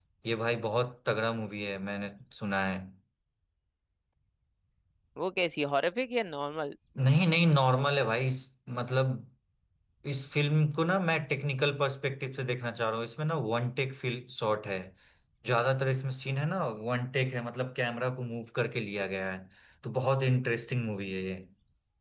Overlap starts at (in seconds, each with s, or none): none